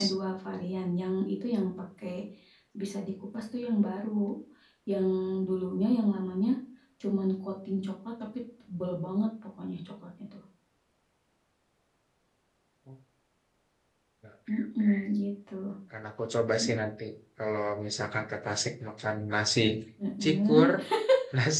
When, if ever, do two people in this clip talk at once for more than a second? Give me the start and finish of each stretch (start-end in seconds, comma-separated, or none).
none